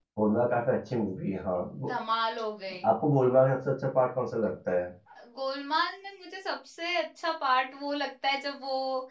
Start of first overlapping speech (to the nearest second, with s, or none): none